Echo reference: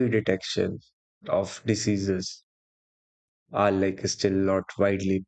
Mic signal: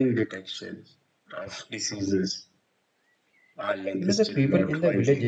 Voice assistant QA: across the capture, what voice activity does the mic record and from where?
both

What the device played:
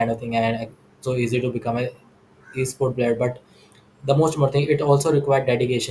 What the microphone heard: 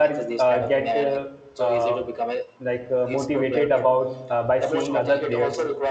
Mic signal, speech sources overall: both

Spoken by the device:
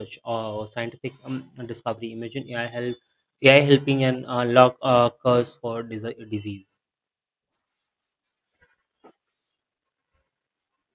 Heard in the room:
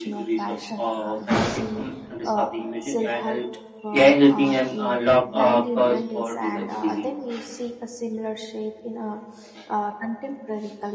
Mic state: both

